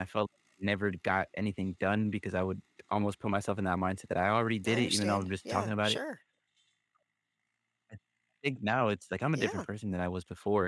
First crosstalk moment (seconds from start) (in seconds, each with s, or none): 4.6 s